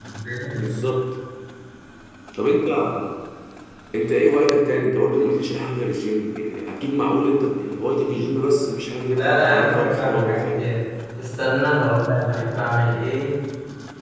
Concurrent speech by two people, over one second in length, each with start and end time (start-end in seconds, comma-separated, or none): 9.2-10.6